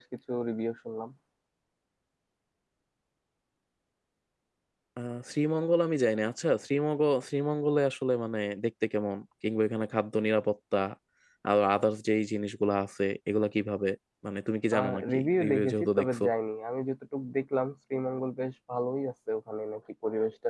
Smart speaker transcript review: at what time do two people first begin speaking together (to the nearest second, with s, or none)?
15 s